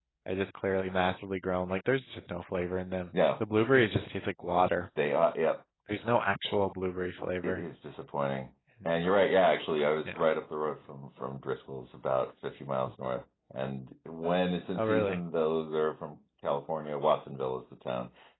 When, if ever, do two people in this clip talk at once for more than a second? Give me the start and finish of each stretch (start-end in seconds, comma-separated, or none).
none